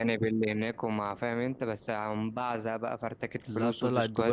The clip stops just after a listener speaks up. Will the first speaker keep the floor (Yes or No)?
No